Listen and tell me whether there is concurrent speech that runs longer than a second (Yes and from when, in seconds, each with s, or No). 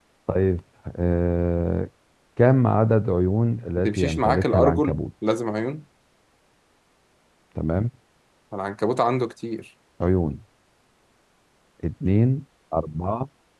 Yes, from 3.8 s